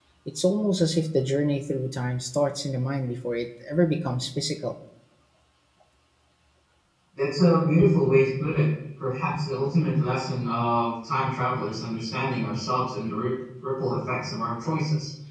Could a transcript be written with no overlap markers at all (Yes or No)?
Yes